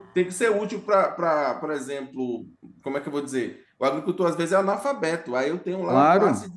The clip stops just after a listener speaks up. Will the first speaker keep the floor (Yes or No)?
Yes